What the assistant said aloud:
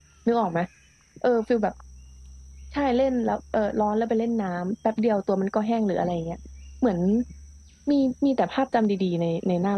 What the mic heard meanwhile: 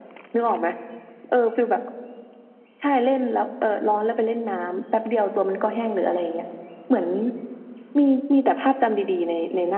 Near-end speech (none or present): none